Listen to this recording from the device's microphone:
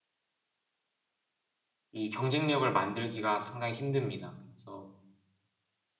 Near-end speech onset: 1.9 s

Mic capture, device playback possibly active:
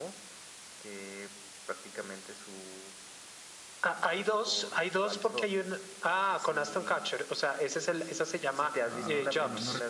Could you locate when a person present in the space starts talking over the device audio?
8.8 s

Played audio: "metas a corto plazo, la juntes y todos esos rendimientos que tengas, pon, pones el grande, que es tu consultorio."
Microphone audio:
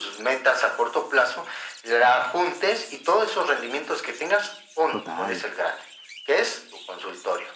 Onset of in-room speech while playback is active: 4.9 s

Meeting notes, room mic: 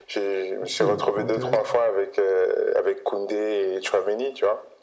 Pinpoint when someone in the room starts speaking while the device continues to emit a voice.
0.6 s

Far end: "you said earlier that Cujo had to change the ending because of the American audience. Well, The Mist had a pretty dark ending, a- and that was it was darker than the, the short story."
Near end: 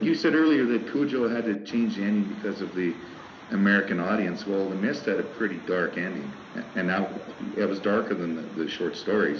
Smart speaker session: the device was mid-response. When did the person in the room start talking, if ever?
none

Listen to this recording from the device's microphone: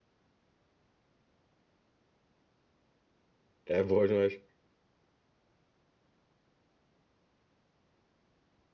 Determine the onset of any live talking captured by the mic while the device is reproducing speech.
3.7 s

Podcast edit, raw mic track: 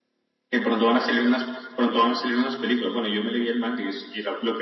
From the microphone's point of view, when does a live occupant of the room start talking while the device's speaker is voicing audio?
none

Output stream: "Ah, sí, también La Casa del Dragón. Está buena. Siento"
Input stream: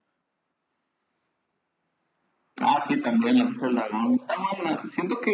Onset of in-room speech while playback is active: none

